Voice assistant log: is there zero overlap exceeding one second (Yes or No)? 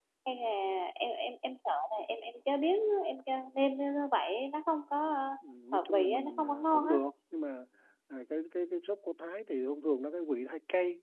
No